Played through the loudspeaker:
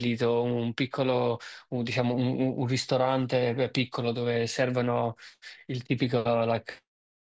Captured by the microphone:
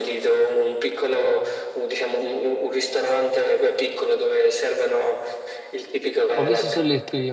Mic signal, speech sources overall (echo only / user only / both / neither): both